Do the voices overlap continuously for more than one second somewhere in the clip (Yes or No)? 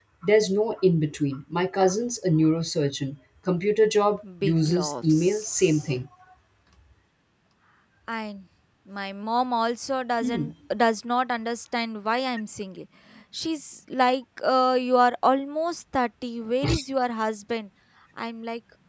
Yes